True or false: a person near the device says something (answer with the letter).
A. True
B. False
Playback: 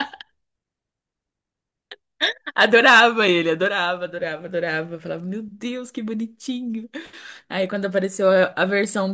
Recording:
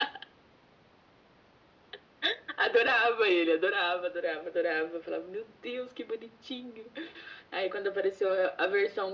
B